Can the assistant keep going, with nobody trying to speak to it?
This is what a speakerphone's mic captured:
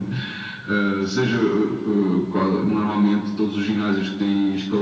Yes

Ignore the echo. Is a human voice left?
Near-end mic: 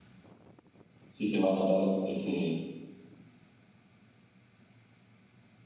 Yes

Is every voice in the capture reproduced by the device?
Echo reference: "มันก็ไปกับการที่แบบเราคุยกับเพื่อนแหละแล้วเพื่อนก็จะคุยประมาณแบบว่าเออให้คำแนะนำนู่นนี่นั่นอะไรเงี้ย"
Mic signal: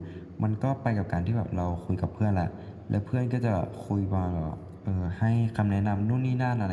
Yes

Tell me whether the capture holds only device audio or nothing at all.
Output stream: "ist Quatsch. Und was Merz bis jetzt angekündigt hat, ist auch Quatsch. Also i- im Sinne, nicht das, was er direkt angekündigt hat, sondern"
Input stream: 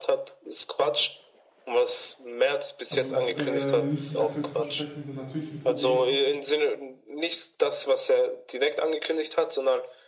No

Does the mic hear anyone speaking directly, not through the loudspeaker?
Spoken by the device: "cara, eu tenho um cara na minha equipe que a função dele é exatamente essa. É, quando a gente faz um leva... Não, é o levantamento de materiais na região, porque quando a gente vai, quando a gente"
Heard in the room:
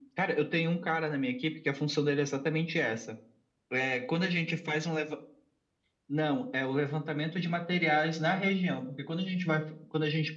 No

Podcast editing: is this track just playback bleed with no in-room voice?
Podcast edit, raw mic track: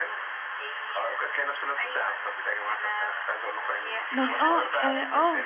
No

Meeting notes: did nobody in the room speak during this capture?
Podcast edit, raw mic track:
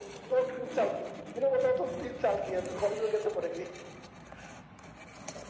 Yes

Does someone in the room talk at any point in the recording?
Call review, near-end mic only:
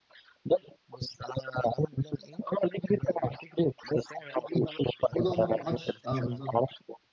Yes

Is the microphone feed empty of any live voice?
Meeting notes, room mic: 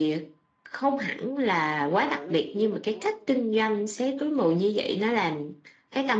No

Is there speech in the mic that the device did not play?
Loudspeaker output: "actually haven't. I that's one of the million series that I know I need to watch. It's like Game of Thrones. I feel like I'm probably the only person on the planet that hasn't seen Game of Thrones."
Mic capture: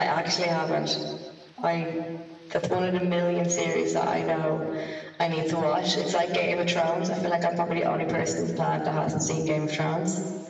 No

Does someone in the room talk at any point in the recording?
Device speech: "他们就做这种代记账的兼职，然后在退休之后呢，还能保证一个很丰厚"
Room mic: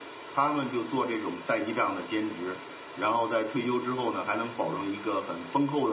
No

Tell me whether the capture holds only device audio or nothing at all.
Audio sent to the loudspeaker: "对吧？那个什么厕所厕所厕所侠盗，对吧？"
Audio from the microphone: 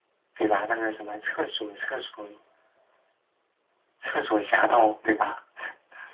Yes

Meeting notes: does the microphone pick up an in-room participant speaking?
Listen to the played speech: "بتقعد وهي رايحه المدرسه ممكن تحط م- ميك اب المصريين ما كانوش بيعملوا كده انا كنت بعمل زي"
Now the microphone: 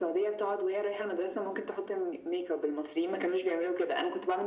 No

